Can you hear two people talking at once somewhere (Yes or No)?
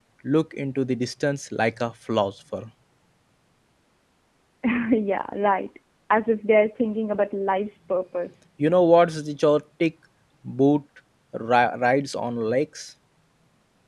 No